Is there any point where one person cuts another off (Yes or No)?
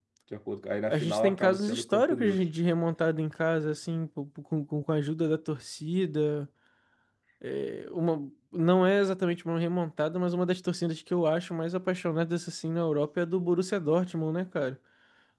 Yes